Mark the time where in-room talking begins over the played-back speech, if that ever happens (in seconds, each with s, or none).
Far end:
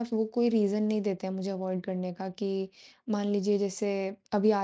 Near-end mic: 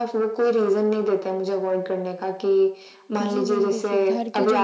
3.2 s